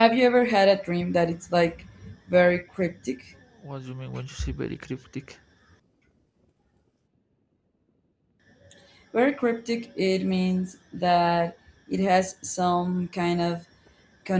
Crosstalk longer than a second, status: none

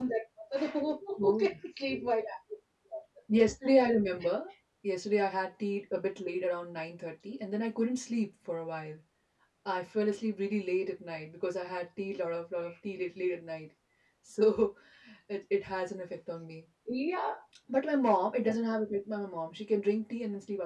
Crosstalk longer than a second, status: none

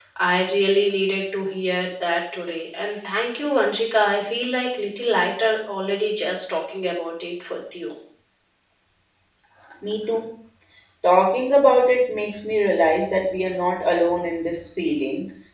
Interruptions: none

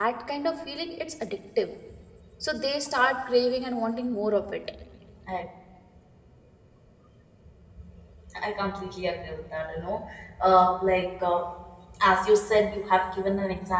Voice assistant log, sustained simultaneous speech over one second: none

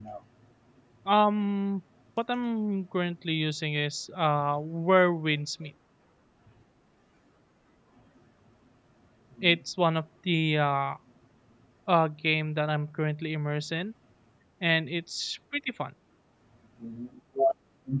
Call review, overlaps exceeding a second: none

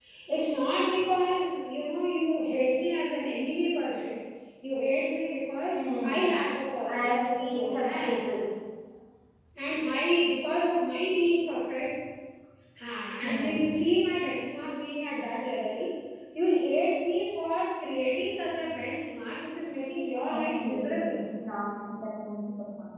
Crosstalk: present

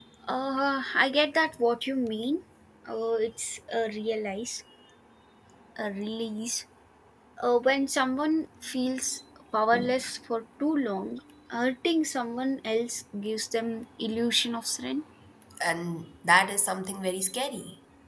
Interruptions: none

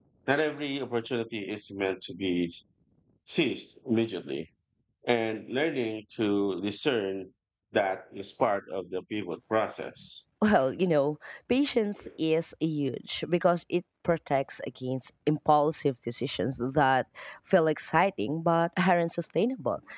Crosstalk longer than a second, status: none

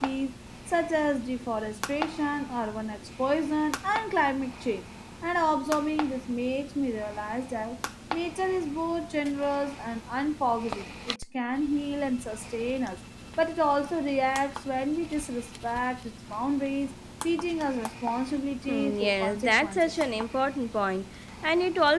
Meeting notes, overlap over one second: present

